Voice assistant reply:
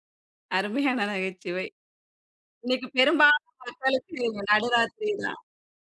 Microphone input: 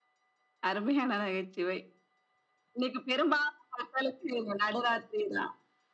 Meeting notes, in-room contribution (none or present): none